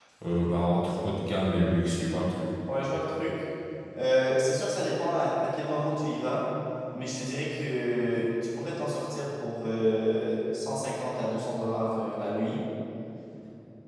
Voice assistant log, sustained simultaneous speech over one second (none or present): none